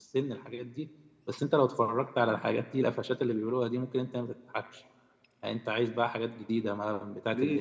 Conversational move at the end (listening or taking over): taking over